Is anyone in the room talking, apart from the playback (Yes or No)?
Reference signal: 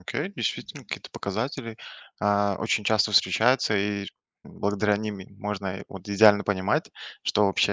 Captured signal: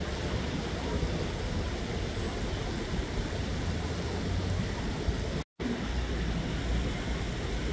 No